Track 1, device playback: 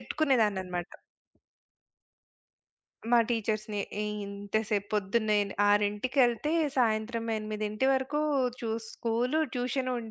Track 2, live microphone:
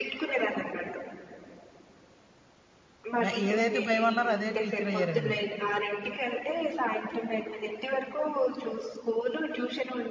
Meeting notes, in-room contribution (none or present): present